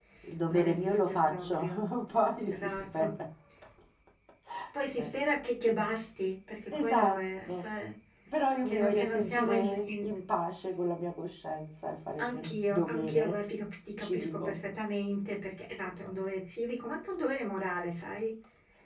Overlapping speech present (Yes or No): Yes